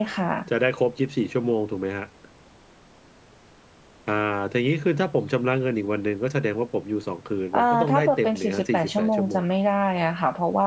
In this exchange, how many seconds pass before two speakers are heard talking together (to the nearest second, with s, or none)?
8 s